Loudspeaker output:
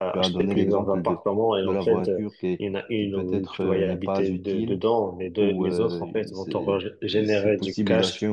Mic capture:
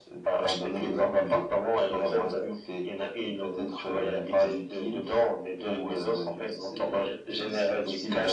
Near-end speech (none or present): none